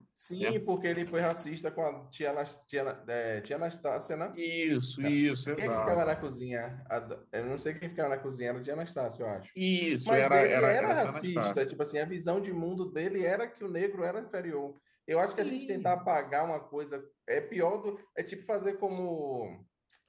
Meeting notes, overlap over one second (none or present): present